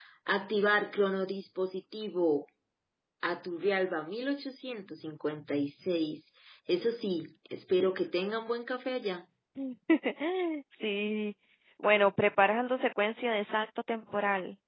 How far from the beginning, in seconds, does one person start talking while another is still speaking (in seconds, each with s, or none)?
none